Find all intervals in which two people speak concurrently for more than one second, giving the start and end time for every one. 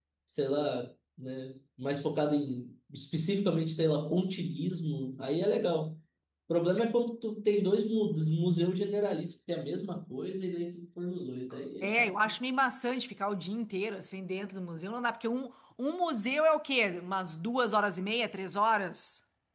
none

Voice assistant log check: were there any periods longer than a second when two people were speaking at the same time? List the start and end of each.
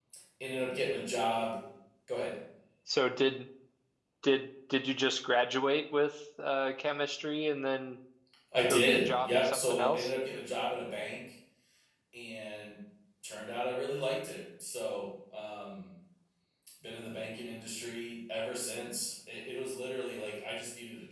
8.7-10.1

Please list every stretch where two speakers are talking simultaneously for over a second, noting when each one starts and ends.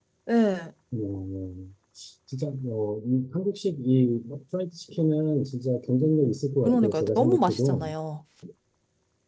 6.7-7.8

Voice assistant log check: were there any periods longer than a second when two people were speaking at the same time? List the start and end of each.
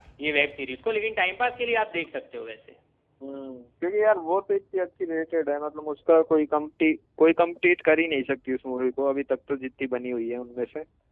none

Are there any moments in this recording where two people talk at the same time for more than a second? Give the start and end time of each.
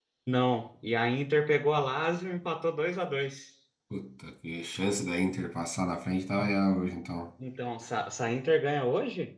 none

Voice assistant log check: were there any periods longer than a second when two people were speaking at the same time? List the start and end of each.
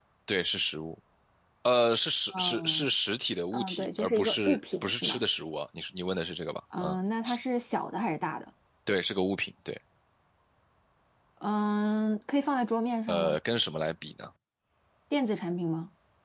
3.5-5.2

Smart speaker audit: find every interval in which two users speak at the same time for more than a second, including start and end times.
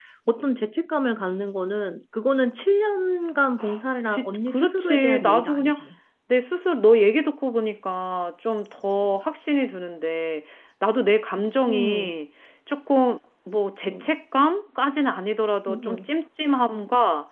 4.1-5.8

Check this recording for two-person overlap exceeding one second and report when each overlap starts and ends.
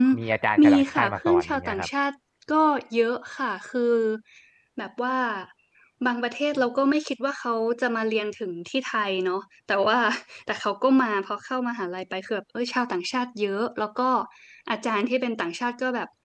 0.6-1.9

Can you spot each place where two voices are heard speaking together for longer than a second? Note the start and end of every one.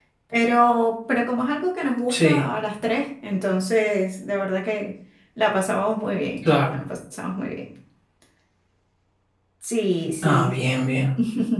none

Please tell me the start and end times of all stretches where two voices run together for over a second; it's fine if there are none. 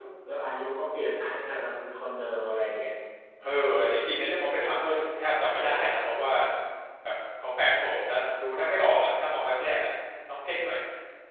none

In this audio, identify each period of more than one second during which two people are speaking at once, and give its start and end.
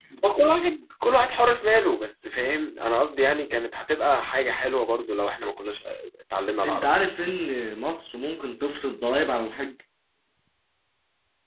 none

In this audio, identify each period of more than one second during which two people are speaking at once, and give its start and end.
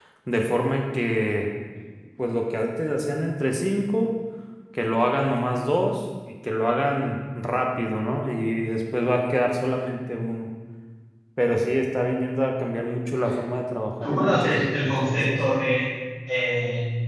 14.0-15.4

